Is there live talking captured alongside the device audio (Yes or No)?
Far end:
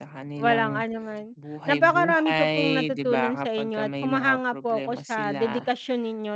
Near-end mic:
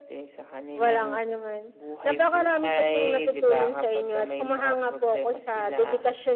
No